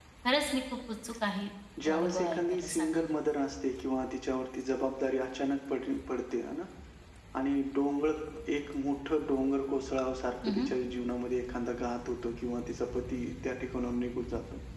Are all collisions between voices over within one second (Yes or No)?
No